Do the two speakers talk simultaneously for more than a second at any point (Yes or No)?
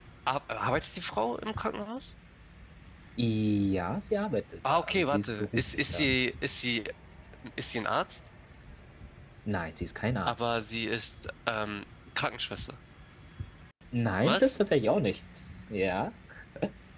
Yes